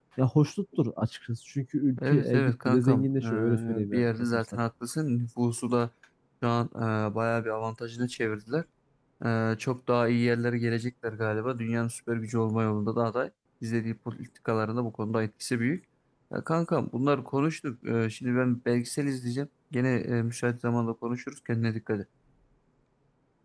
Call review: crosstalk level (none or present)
present